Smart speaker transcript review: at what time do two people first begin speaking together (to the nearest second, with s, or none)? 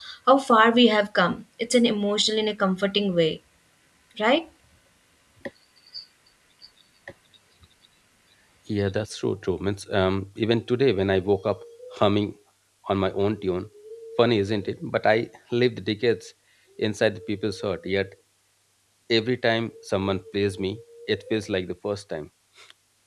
none